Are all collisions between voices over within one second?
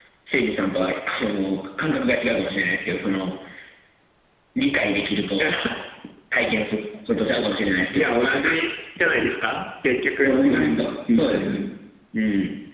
No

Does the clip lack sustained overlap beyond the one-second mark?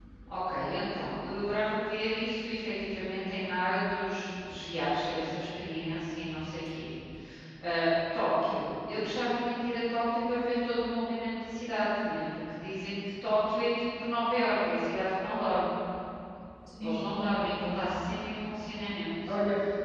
Yes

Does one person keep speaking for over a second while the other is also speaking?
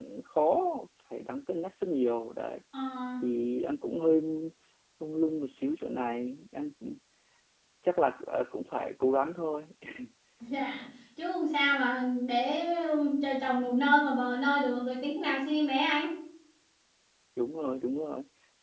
No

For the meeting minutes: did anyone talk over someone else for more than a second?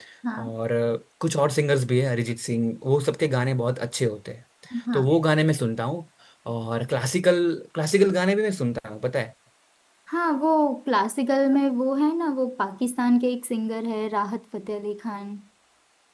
No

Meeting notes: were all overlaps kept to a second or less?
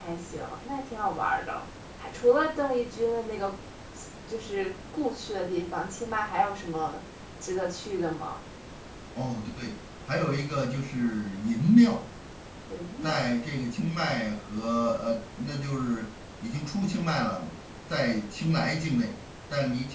Yes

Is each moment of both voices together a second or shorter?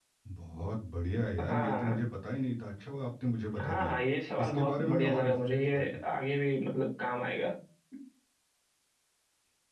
No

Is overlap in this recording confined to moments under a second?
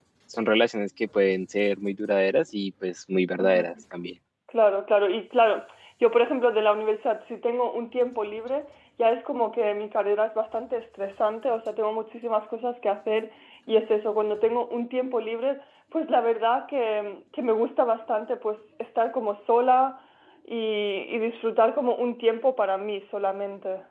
Yes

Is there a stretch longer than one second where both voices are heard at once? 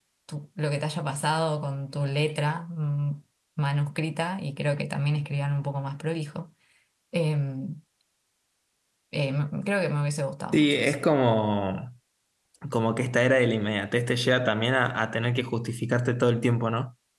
No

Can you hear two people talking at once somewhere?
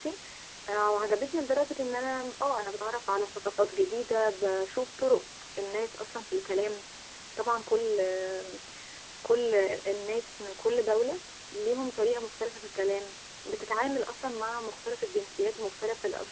No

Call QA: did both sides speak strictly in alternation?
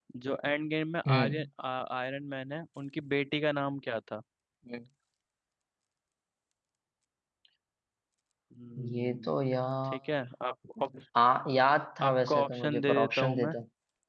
No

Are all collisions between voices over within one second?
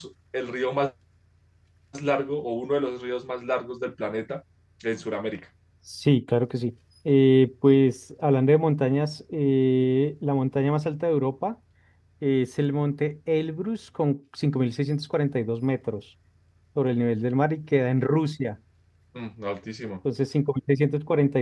Yes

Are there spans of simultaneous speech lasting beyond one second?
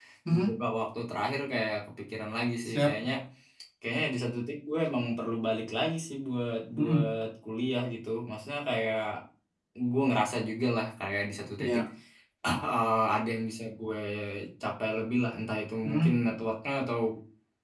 No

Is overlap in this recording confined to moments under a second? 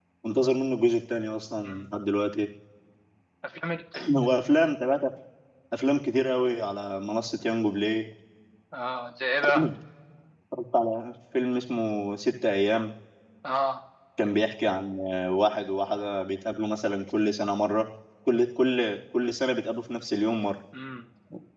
Yes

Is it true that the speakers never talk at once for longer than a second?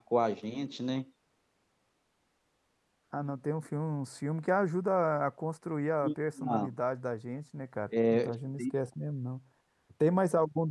Yes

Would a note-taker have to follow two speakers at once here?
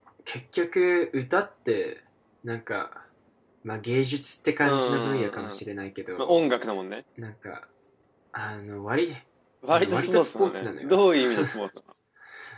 Yes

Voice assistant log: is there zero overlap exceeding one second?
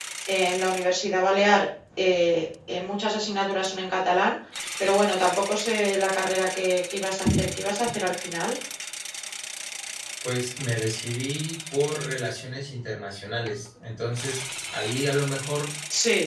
Yes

